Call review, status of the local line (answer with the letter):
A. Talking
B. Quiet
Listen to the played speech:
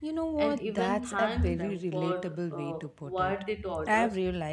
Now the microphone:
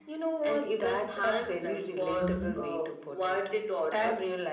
A